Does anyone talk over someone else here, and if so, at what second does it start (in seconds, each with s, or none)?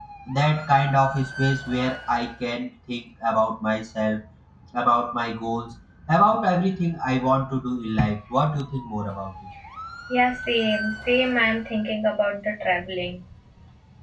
none